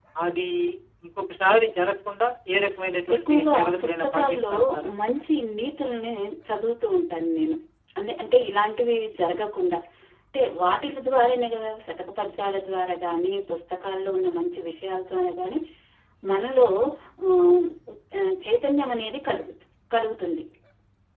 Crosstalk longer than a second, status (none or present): present